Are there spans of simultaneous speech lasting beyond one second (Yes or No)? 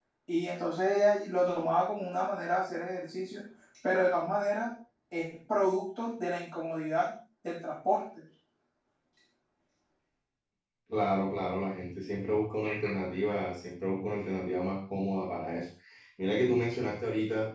No